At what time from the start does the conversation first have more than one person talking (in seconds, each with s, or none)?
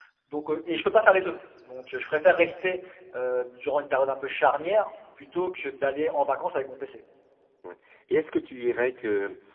none